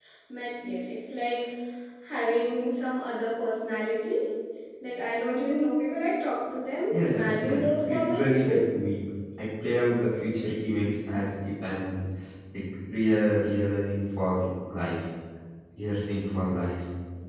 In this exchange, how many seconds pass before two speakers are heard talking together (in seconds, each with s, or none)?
6.9 s